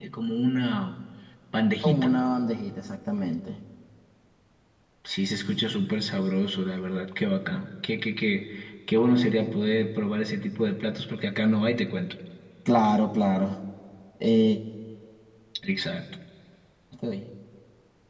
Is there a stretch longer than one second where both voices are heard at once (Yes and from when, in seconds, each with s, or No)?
No